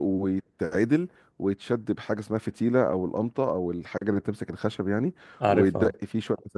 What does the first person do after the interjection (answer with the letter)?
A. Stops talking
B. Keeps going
B